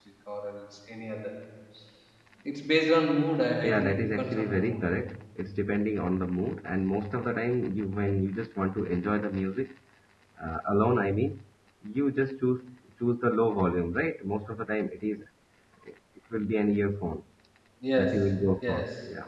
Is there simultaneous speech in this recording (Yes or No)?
Yes